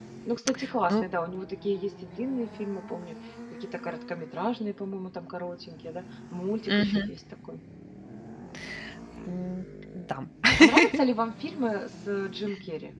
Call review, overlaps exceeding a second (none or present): none